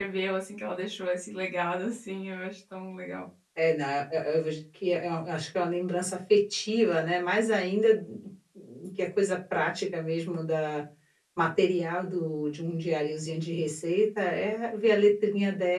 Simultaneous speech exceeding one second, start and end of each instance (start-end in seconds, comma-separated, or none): none